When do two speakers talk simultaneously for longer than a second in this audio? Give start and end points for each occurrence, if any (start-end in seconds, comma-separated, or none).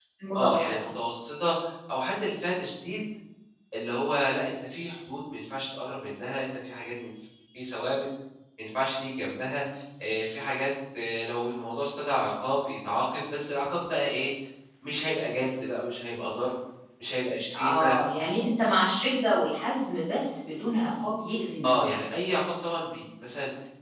none